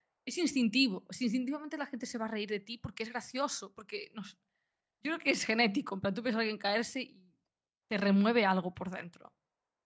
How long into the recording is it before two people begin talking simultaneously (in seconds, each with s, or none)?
none